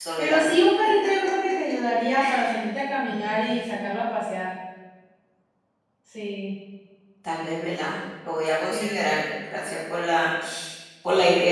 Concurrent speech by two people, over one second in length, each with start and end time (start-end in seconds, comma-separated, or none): none